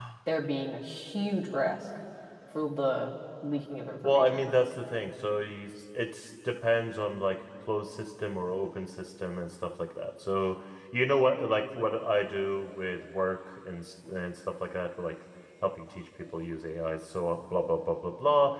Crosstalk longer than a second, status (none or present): none